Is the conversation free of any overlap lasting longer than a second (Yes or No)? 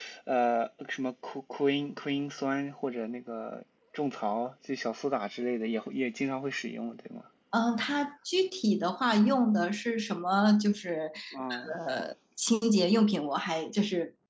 Yes